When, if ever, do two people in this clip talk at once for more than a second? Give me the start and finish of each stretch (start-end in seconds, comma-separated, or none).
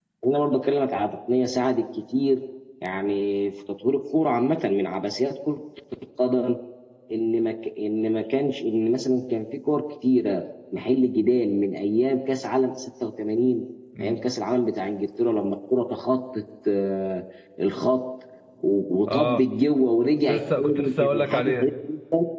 20.3-21.7